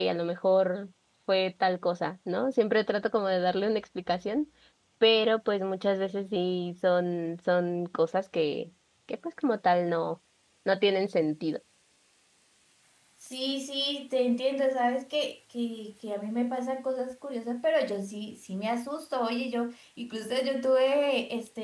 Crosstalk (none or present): none